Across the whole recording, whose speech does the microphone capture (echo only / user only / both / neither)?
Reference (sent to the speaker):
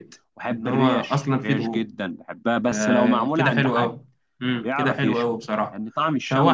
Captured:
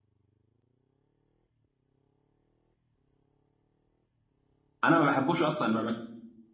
user only